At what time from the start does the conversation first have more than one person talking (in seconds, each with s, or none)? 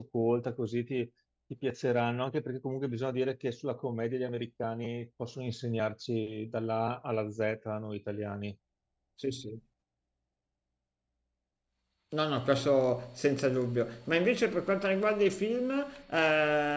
none